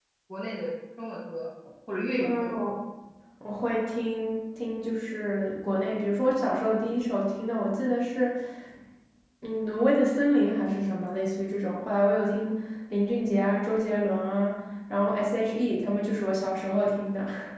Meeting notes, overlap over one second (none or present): none